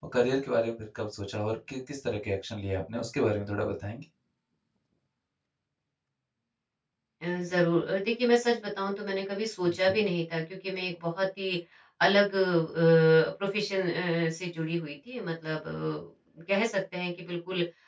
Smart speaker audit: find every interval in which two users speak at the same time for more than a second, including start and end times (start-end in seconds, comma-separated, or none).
none